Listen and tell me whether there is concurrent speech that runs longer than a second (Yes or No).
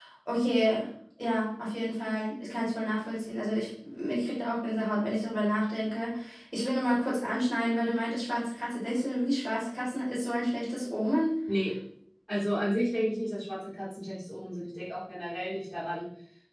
No